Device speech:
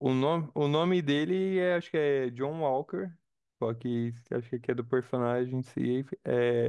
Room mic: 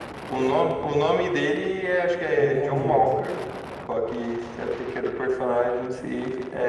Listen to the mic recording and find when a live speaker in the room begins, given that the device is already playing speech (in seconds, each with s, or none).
2.4 s